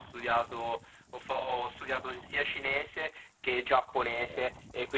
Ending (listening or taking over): listening